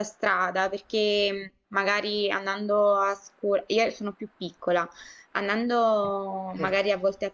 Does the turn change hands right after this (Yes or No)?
No